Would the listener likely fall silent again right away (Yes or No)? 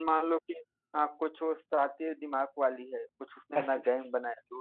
Yes